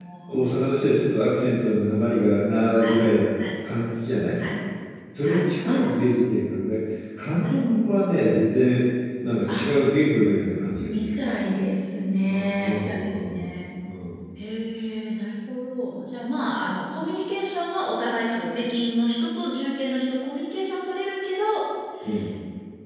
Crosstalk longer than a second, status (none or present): present